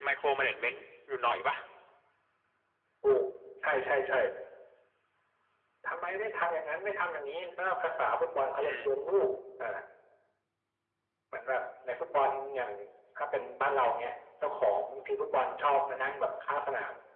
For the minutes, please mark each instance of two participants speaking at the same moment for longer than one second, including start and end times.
none

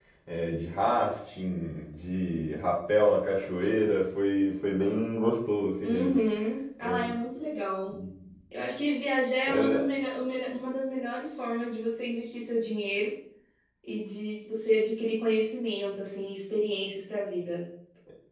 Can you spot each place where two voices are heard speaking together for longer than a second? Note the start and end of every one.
none

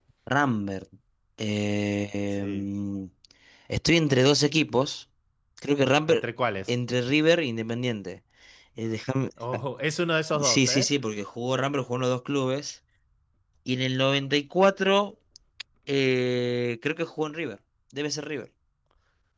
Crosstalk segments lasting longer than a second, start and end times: none

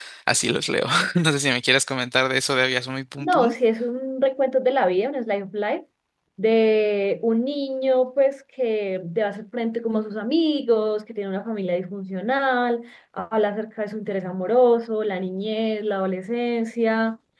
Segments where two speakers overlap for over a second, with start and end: none

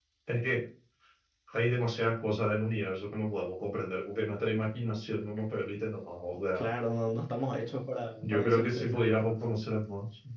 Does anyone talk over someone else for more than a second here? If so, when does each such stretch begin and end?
8.2-9.4

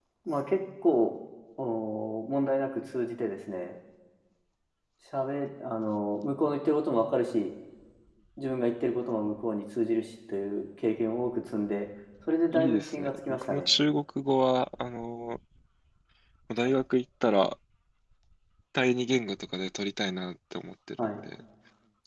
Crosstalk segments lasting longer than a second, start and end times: 12.5-13.7

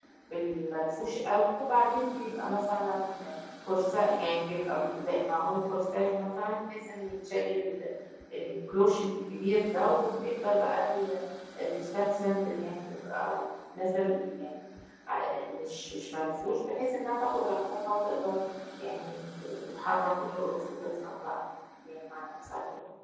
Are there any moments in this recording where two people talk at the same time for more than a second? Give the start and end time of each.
none

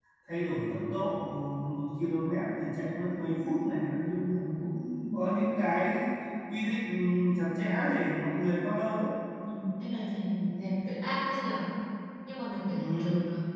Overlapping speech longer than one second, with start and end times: none

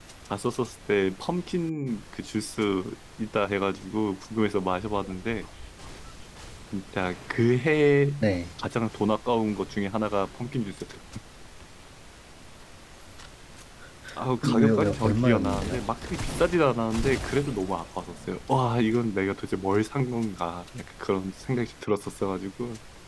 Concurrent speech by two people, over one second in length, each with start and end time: 14.4-15.8

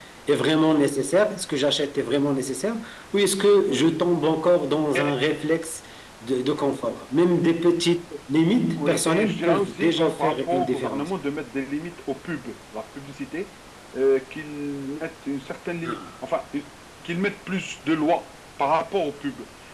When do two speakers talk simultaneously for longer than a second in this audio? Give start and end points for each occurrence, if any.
8.8-11.1

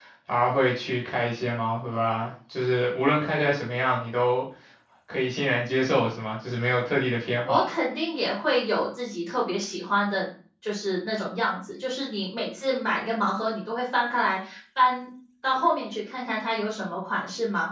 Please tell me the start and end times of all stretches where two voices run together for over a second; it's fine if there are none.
none

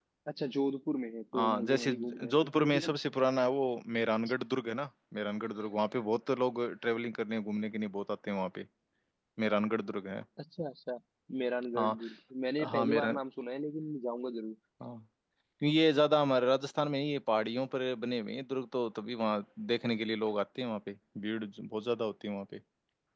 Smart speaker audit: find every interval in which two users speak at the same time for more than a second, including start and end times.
1.3-2.8

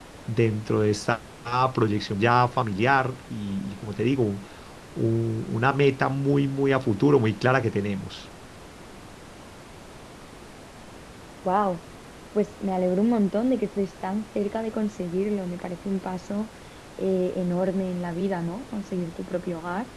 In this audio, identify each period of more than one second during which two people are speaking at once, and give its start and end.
none

